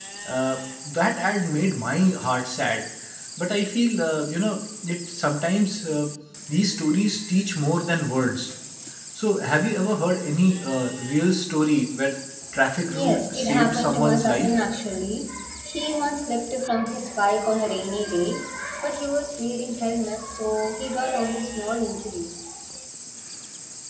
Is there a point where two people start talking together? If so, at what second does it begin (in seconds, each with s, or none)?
12.9 s